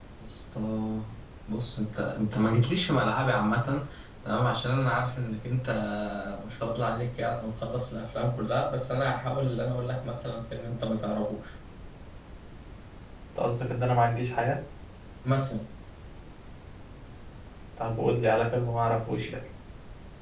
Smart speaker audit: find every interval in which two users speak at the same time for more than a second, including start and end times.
none

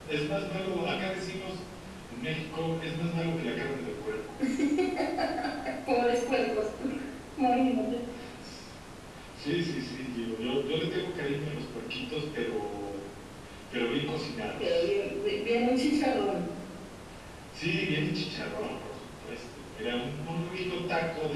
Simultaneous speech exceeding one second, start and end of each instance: none

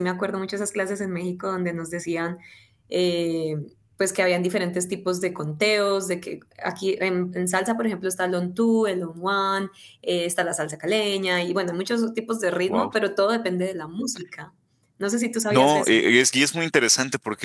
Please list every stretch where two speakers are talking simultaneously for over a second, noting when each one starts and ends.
none

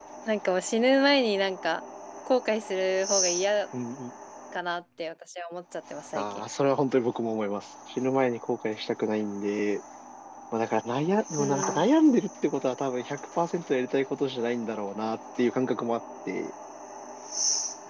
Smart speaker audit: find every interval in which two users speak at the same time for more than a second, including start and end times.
none

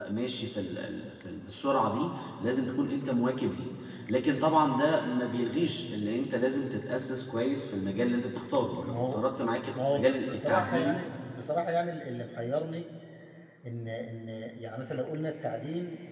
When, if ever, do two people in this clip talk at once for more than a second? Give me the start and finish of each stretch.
9.7-11.0

